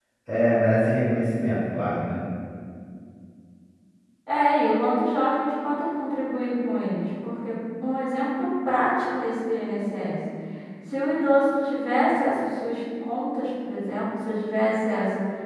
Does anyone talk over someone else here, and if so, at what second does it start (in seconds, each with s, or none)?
none